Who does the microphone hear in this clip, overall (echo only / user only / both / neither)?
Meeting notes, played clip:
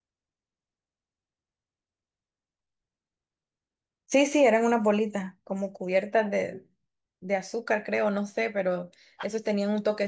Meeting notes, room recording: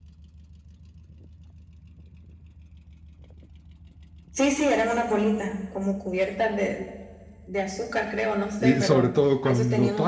both